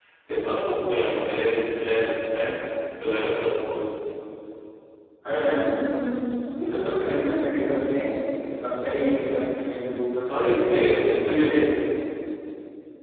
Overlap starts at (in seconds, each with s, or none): 10.3 s